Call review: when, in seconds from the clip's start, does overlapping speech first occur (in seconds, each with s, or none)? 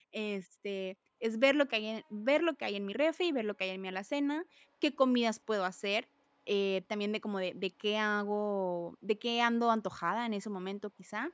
none